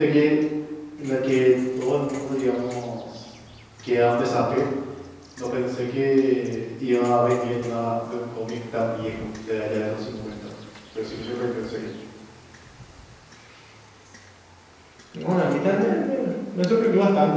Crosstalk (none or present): none